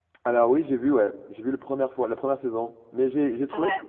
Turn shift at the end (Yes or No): No